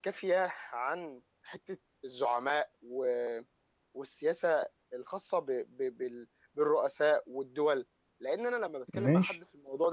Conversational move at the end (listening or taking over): listening